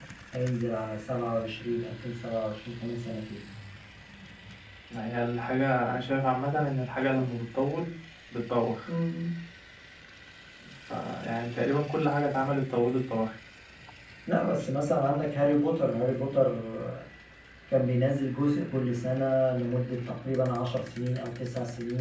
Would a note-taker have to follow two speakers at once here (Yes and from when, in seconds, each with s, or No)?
No